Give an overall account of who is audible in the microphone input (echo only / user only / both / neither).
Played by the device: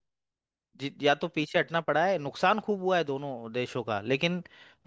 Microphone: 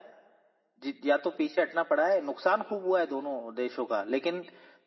echo only